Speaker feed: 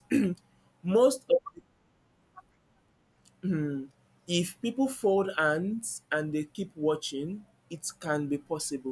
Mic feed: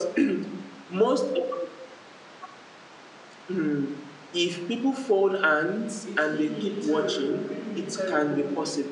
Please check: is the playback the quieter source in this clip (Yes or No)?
No